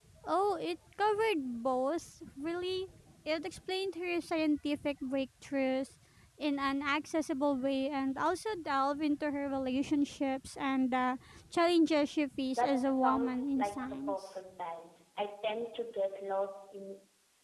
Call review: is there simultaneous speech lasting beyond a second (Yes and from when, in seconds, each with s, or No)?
Yes, from 12.6 s